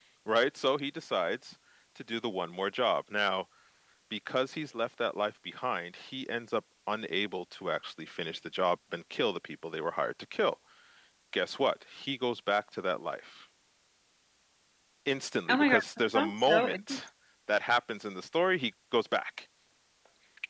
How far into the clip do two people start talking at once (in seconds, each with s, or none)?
15.5 s